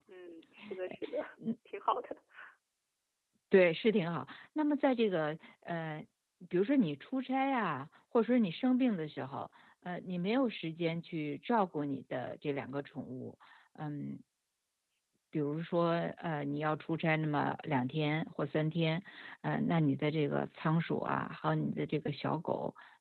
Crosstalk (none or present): none